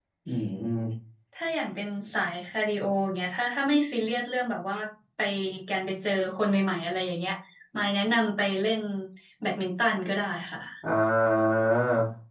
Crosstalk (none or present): none